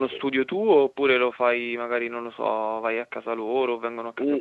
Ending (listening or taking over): taking over